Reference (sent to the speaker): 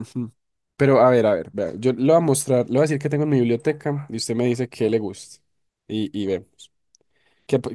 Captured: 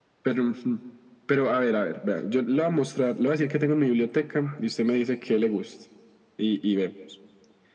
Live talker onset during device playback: none

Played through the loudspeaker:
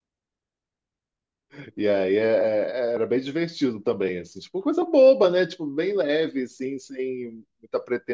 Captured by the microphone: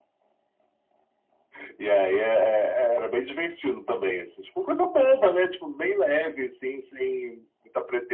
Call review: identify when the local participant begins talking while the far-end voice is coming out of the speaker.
none

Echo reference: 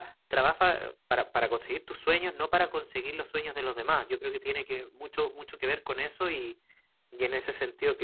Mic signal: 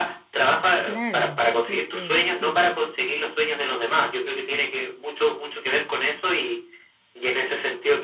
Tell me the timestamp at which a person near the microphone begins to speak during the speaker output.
0.8 s

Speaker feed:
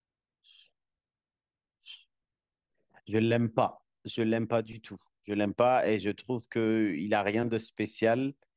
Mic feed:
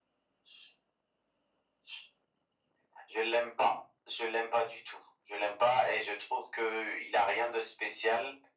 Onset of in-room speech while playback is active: none

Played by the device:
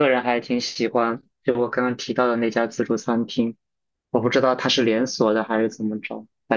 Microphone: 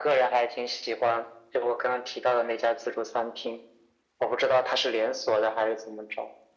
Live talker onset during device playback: none

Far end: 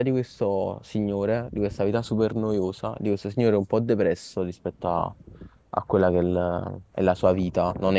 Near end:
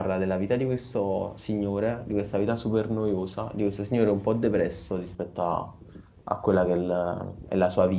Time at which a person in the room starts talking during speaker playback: none

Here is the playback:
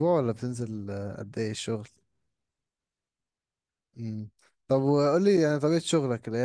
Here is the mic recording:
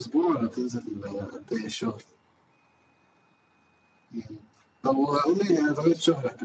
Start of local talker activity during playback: none

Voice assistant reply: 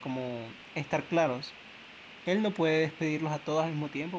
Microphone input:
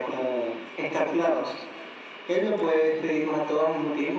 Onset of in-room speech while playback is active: none

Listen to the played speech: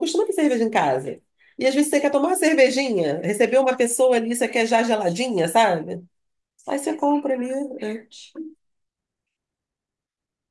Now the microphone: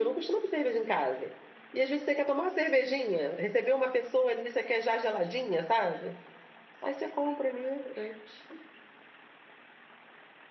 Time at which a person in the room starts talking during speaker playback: none

